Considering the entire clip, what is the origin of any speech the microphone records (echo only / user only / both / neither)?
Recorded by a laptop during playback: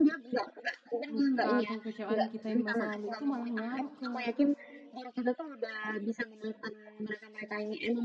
both